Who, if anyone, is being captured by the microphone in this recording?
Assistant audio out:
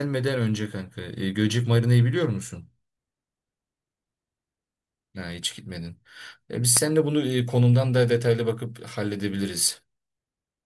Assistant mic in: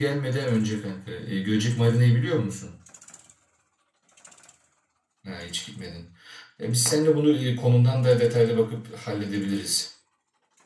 echo only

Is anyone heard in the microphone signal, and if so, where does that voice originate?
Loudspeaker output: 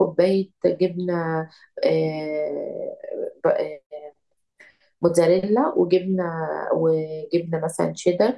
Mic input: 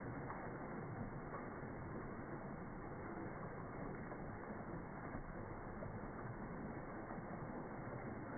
neither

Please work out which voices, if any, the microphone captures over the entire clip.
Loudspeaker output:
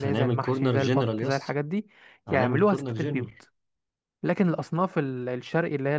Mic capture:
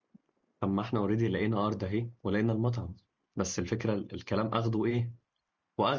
user only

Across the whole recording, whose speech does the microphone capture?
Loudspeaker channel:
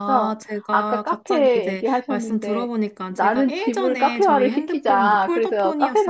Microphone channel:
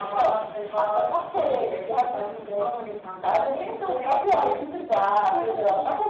echo only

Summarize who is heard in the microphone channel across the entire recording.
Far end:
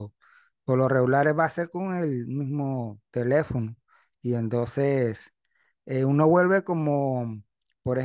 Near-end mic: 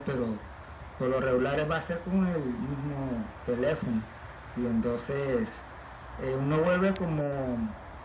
echo only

